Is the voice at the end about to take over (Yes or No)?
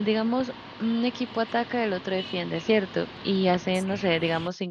No